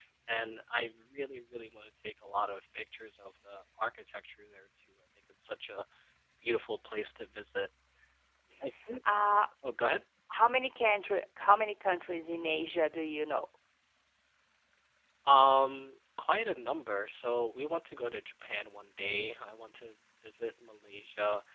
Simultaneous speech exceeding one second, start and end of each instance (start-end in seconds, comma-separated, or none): none